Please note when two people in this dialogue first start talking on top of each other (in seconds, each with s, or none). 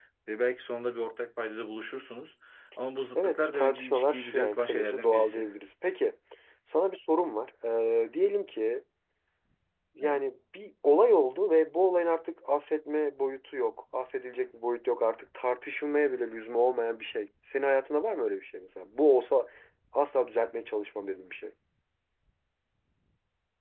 3.1 s